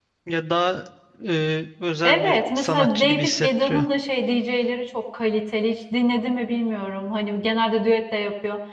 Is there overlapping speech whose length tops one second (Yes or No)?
Yes